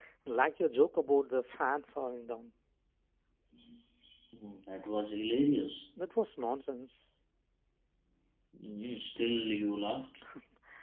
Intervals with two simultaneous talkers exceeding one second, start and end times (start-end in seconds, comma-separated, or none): none